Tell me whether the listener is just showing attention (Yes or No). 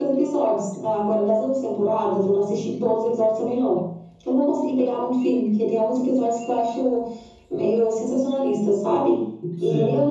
Yes